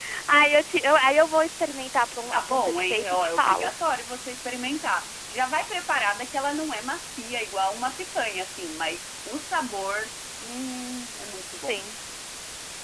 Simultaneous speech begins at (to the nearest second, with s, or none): 2 s